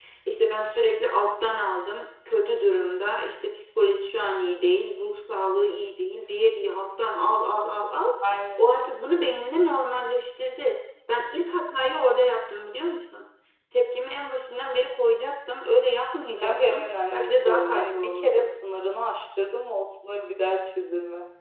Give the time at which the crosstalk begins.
16.4 s

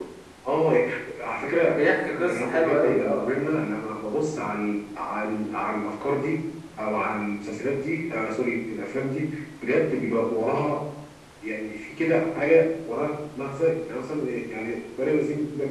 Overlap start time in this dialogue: 1.6 s

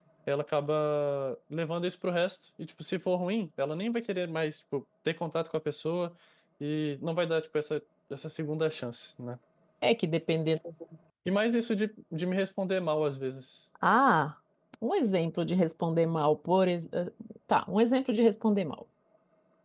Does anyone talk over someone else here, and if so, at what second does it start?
none

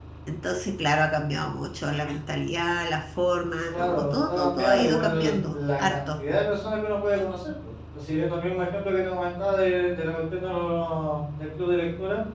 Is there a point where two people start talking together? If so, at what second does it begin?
3.7 s

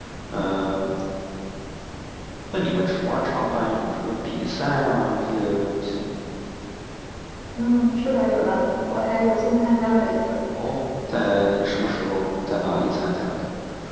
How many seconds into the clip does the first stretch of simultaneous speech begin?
none

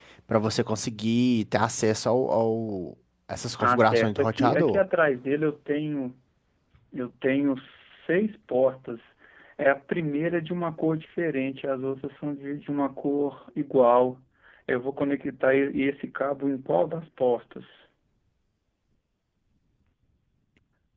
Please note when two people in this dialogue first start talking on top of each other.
3.6 s

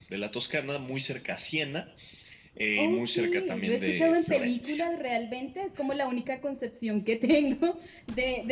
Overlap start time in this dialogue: 2.8 s

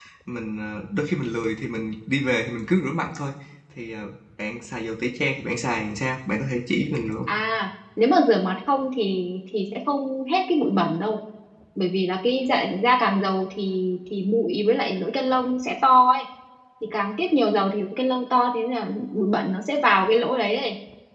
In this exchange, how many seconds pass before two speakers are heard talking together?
none

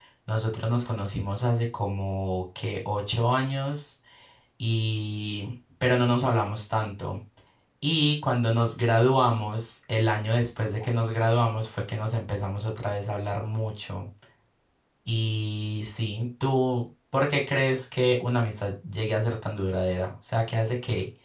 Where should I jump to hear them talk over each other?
none

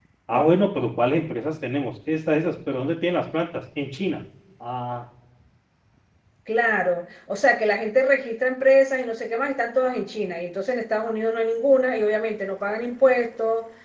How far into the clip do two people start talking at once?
none

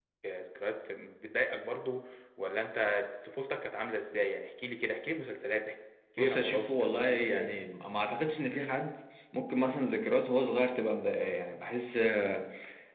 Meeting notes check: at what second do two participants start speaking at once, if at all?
6.2 s

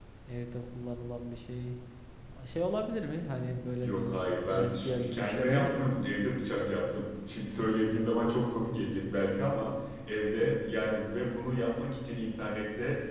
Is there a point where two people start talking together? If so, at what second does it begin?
3.8 s

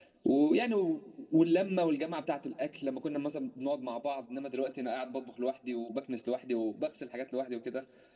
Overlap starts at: none

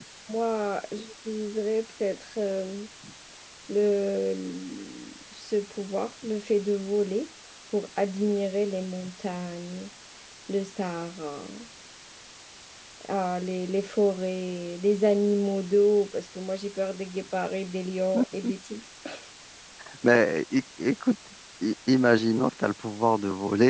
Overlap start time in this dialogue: none

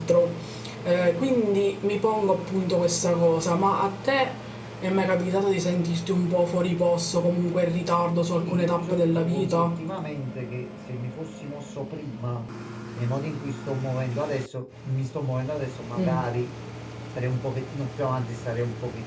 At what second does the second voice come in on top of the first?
8.3 s

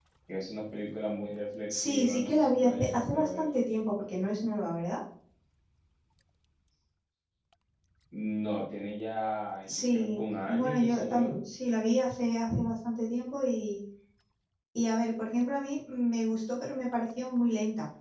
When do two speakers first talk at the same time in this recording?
1.8 s

